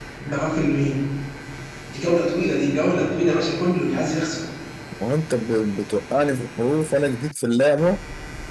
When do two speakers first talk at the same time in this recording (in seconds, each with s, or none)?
none